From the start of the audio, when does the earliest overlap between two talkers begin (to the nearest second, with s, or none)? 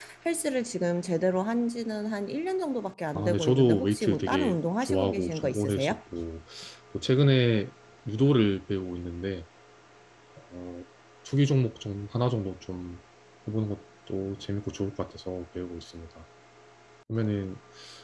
3 s